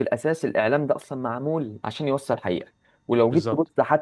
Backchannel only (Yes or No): Yes